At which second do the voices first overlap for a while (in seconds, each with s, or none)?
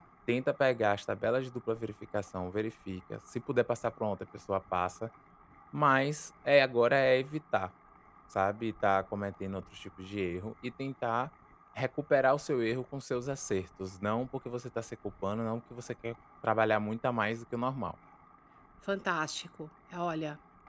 none